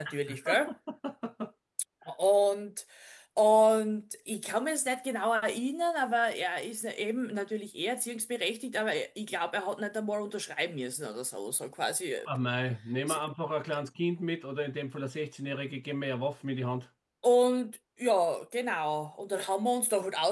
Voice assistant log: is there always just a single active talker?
Yes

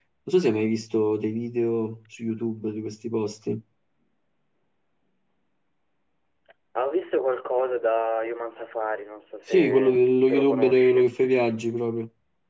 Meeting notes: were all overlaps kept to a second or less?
No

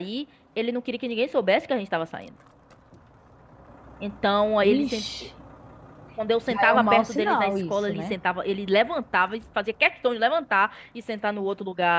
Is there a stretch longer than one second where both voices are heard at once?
Yes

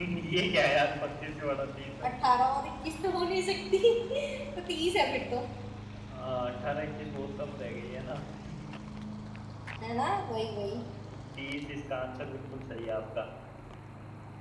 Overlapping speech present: No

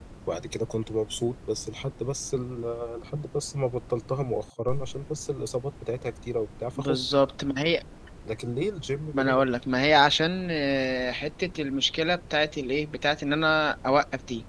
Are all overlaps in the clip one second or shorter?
Yes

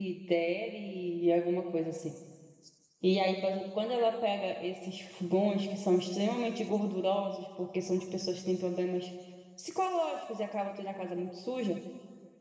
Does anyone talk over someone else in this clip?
No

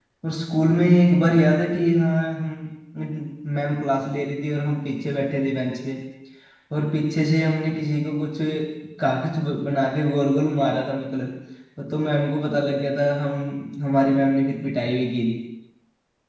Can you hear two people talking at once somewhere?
No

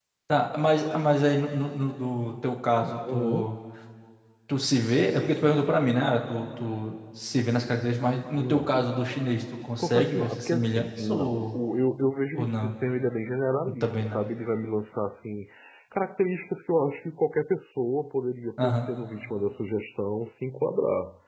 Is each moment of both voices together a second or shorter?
No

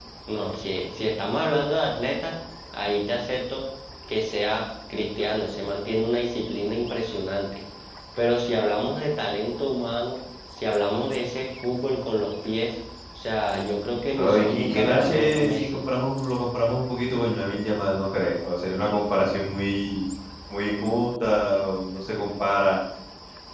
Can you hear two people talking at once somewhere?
Yes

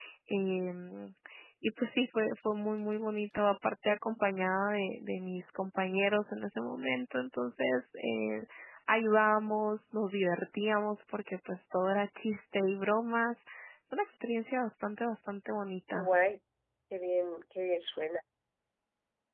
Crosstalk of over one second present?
No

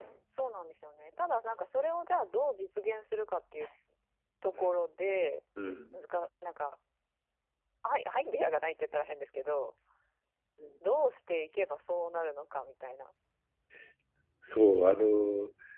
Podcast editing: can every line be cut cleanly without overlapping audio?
Yes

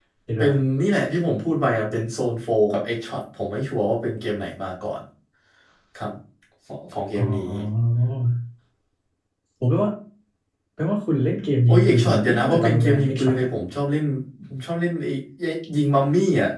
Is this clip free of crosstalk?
No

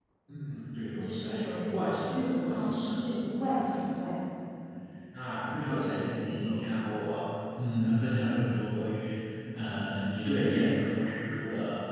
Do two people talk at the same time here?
Yes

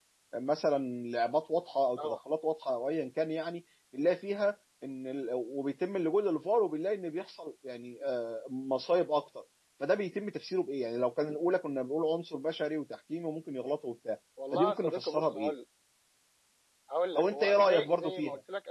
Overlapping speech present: Yes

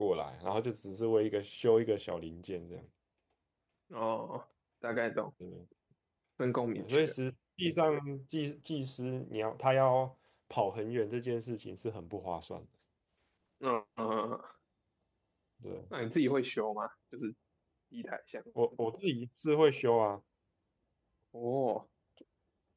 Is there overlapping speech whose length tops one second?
No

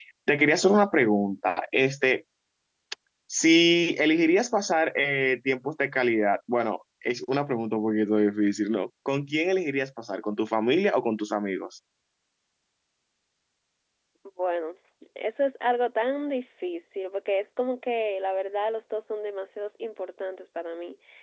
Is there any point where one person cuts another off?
No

